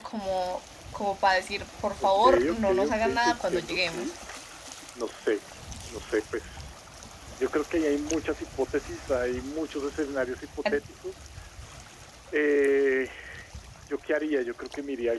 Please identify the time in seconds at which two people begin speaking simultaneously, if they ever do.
2 s

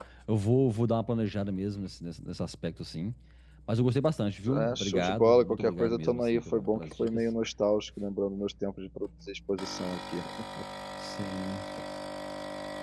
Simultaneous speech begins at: 4 s

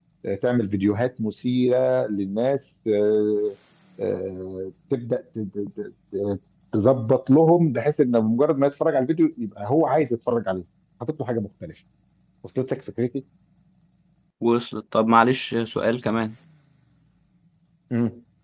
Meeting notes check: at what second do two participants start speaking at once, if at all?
none

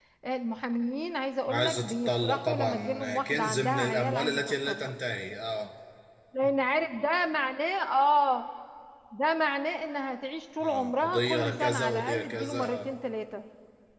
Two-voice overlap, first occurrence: 1 s

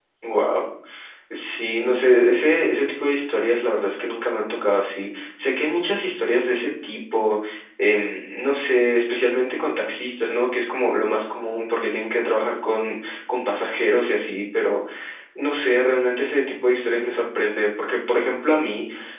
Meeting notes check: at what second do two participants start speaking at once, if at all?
none

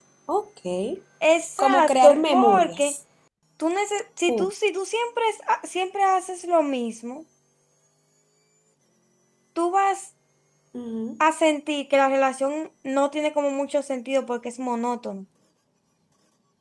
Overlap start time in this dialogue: 2 s

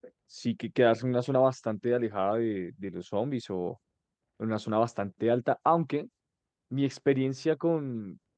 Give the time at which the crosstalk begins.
none

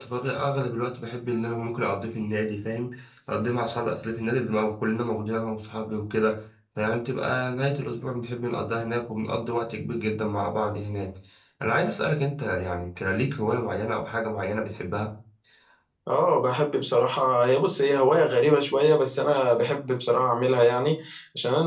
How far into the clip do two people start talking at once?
none

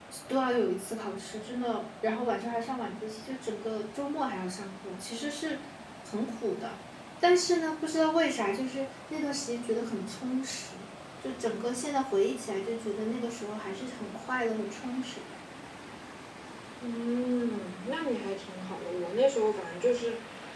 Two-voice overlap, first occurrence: none

